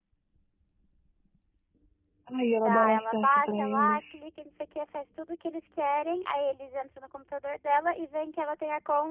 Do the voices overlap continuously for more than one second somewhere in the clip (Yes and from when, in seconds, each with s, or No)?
Yes, from 2.6 s